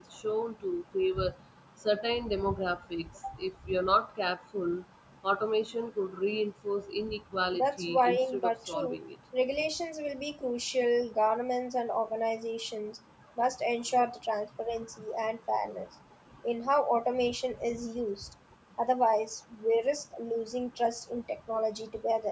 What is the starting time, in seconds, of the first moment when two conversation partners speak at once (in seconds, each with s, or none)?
7.5 s